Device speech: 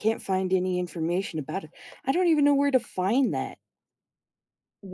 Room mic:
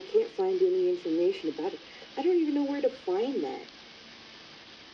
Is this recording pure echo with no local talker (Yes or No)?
Yes